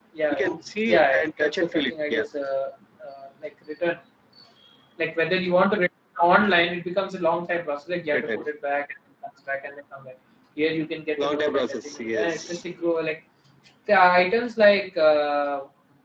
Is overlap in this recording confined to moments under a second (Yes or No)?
No